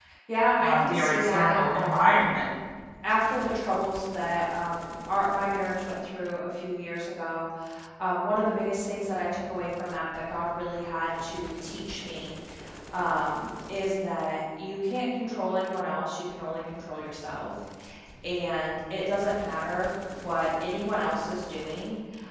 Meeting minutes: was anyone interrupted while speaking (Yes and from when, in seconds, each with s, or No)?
Yes, from 0.6 s